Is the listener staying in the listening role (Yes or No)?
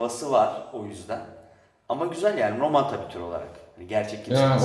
No